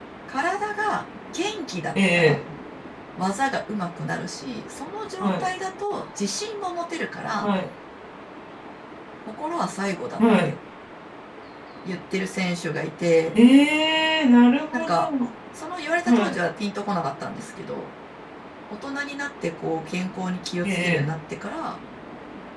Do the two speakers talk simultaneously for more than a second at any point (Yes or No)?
No